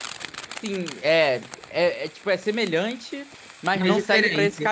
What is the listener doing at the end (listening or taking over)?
listening